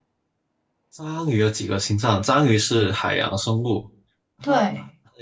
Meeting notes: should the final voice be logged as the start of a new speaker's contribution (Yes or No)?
No